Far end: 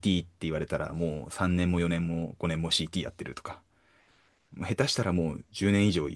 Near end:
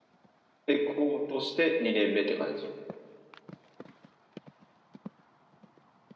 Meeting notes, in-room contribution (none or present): present